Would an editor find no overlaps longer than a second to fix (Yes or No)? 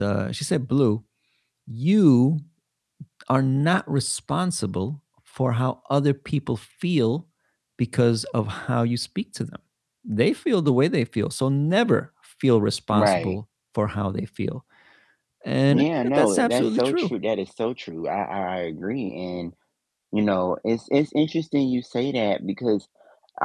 No